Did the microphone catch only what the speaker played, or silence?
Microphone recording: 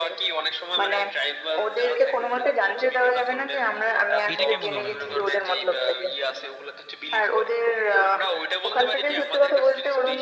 No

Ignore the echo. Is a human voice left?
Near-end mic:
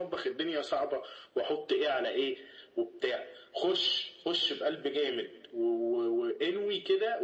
No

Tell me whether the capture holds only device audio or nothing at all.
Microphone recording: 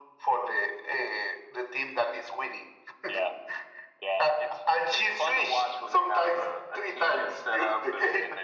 Yes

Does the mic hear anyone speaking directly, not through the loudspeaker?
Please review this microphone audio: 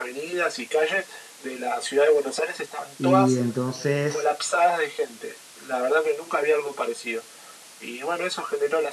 Yes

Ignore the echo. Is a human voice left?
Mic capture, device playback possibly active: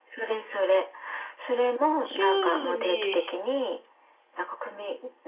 Yes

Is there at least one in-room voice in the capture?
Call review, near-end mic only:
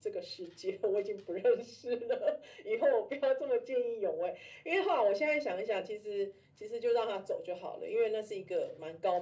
No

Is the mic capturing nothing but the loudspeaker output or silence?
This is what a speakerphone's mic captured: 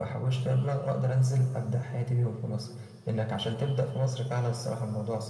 Yes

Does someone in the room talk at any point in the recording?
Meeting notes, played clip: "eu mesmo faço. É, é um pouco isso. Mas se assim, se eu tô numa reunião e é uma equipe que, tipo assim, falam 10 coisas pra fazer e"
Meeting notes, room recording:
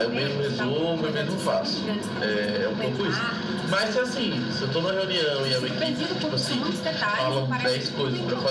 Yes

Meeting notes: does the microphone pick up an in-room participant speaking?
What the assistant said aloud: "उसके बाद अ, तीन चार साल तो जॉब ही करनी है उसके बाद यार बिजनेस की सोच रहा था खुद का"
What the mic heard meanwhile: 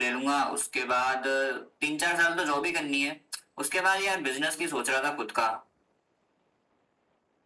No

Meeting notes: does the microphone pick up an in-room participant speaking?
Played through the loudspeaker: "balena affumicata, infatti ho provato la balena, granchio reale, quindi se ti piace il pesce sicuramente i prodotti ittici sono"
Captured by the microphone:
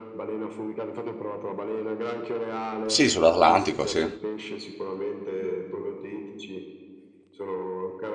Yes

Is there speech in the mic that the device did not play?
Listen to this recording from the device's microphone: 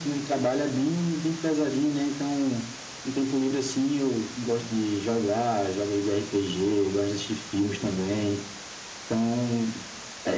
No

